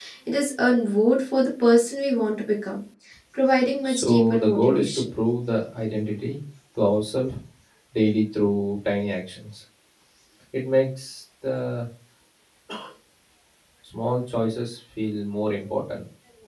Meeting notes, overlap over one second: present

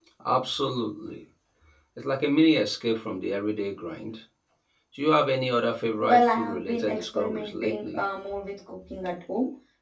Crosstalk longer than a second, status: present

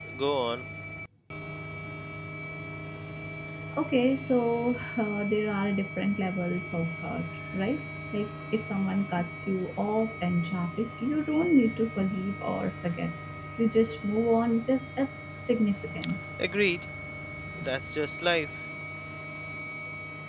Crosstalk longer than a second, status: none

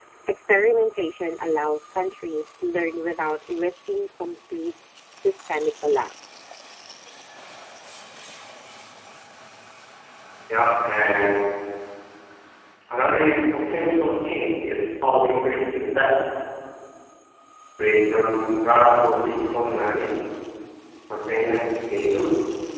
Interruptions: none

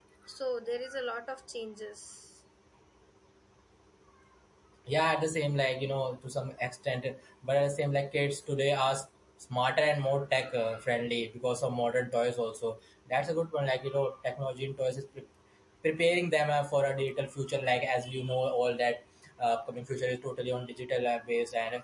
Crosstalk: none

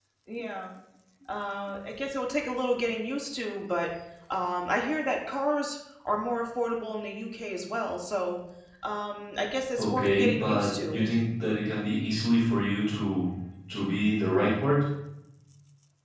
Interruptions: present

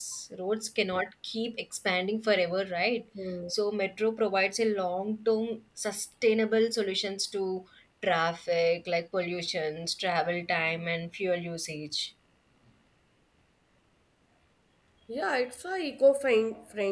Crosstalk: none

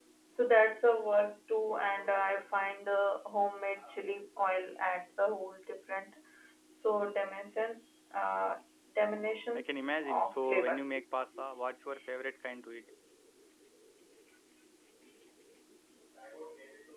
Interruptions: present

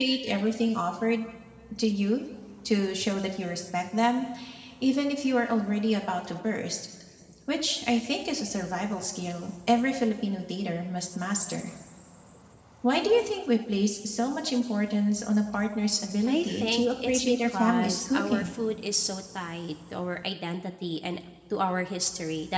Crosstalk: present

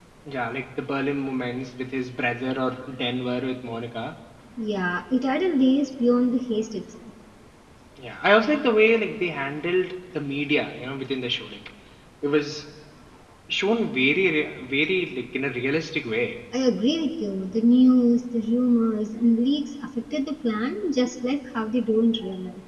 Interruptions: none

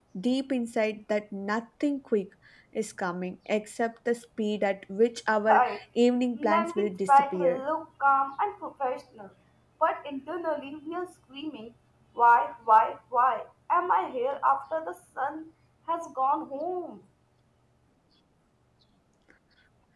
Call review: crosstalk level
present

